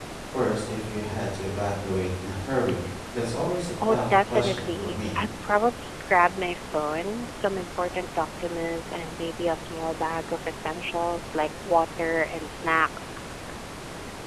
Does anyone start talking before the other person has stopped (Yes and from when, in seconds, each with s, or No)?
Yes, from 3.9 s